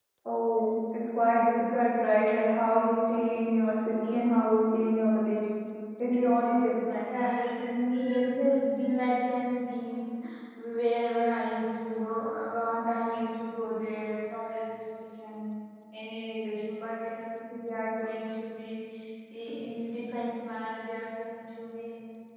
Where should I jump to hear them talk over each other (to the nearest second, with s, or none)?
none